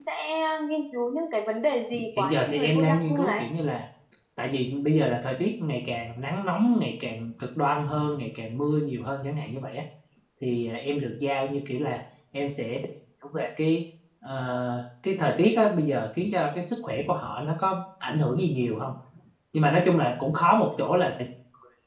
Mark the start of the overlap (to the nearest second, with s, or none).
2 s